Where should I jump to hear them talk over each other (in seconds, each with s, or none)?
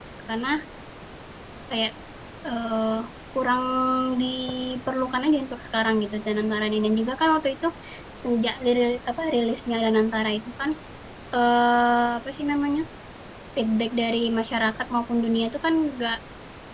none